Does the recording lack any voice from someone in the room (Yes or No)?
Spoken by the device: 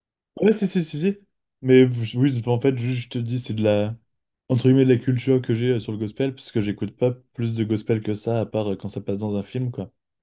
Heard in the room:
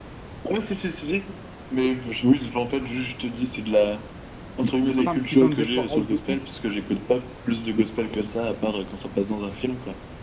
No